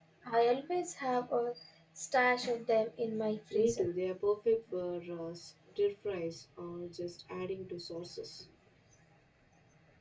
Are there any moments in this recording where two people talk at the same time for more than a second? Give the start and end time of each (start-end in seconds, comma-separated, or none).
none